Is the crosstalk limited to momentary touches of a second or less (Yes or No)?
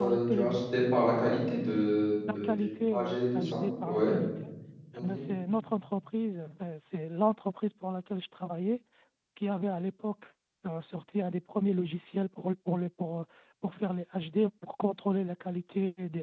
No